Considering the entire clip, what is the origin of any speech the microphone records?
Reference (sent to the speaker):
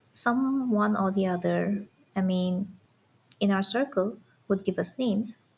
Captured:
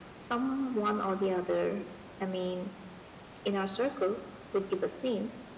echo only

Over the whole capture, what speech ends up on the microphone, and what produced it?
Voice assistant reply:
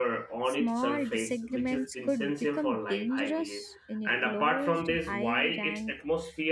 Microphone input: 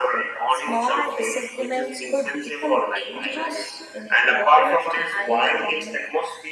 echo only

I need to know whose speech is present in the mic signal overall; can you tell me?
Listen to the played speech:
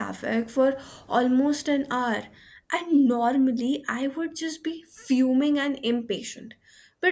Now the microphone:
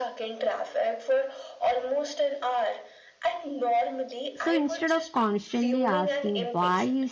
both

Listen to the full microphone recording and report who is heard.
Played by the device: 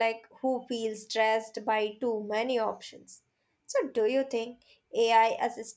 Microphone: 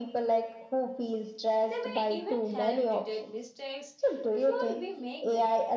both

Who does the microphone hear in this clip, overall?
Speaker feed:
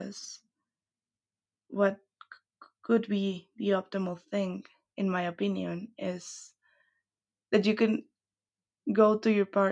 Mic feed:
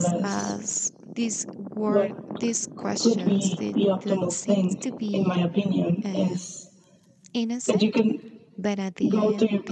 both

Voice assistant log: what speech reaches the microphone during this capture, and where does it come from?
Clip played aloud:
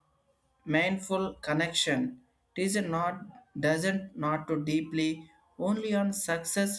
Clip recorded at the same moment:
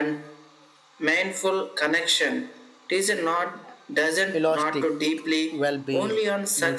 both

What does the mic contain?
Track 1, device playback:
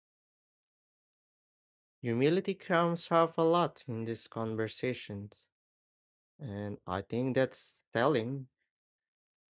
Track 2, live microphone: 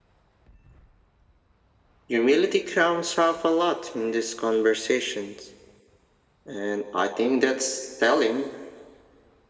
echo only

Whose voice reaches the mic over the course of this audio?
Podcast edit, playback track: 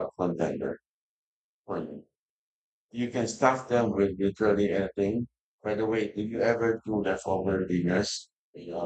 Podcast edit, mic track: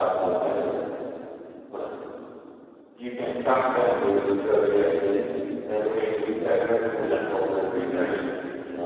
echo only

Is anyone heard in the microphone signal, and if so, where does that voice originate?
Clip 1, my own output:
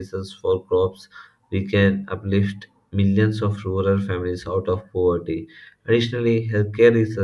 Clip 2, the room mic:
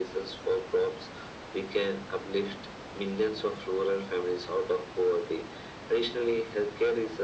echo only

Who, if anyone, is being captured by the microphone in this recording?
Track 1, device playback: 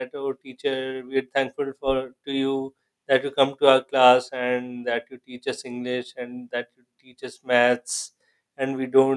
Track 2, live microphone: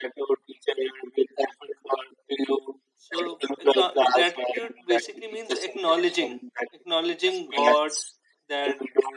both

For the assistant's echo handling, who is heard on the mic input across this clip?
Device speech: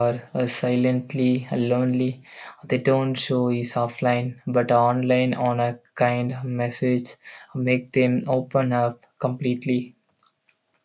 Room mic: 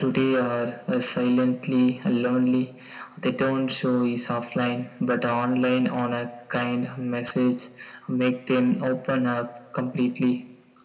echo only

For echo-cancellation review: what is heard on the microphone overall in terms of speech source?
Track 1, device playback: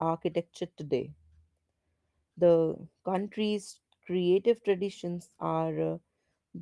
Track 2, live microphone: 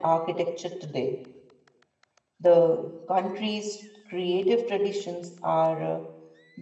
echo only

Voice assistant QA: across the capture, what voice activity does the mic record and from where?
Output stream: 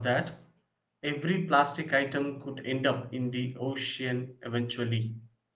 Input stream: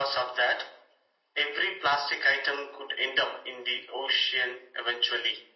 echo only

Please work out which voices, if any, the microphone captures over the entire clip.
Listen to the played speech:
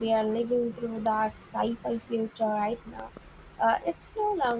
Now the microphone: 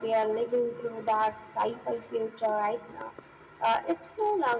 echo only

